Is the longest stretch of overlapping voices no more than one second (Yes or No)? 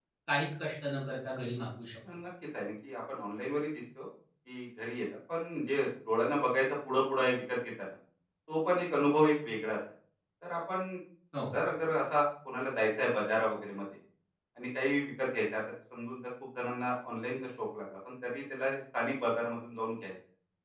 Yes